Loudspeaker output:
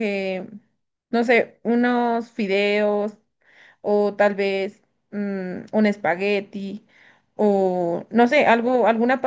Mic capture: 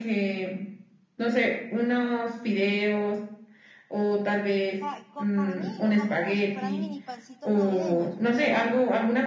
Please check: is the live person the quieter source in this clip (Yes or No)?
Yes